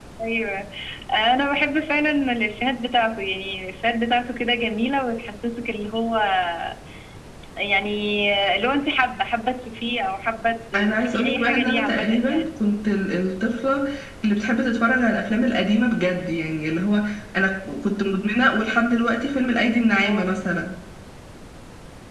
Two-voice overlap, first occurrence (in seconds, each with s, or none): 10.7 s